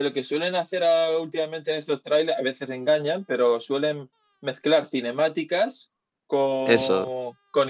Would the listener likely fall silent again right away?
Yes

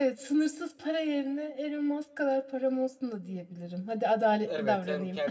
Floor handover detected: Yes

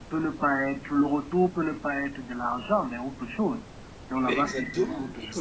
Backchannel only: No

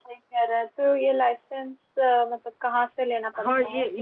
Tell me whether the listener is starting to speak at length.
Yes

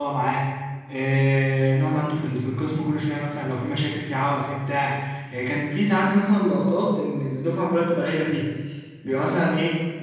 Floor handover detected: No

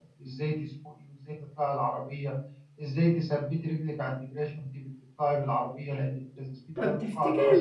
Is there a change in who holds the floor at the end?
Yes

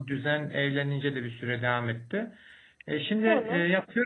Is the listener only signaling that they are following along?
Yes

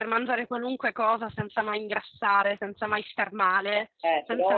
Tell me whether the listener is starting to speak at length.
No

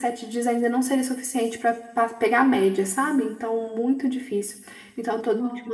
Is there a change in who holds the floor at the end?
No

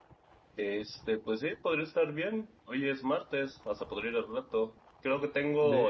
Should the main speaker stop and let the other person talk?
No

